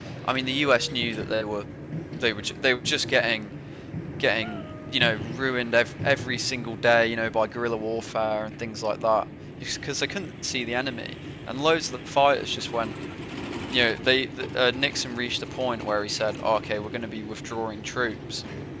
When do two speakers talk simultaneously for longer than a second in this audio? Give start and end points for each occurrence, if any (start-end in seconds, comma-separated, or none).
none